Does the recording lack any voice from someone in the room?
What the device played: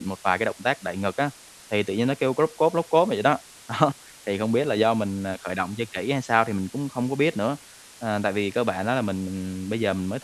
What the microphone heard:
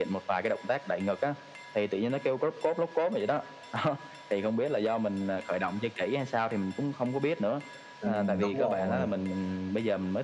No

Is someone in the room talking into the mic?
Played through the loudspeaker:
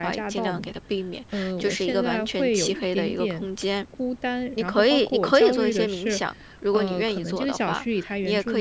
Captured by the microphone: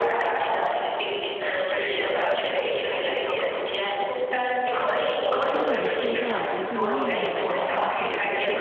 Yes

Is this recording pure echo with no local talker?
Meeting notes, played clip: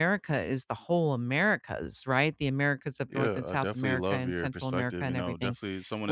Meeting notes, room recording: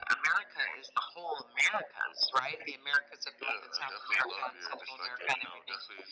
Yes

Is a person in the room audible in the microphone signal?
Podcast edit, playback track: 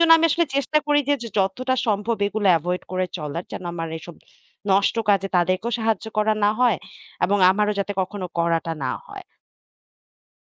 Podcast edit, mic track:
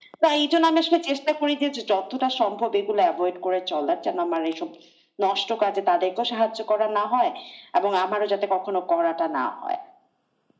No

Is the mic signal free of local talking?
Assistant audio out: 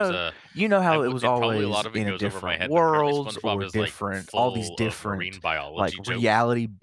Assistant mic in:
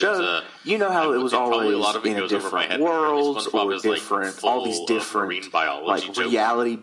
Yes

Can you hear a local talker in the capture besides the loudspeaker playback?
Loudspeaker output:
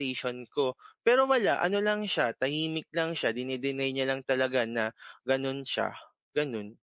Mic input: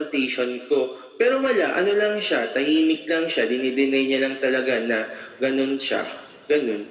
No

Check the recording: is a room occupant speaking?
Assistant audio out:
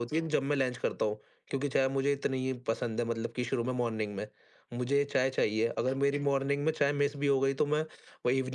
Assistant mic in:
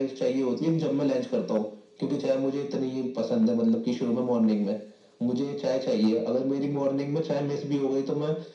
No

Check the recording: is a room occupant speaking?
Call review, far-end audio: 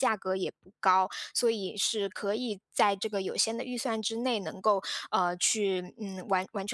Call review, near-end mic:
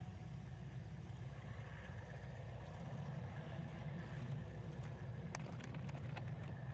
No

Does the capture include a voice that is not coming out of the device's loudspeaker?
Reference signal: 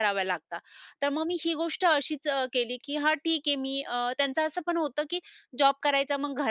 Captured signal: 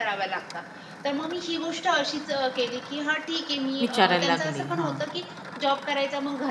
Yes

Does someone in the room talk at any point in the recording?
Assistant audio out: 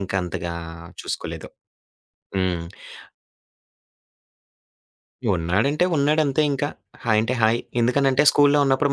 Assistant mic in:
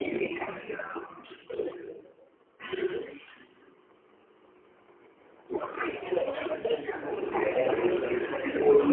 Yes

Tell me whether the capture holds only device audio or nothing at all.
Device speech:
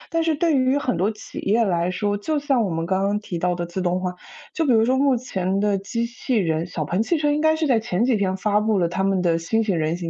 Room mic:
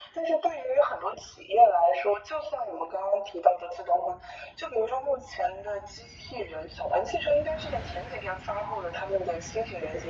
Yes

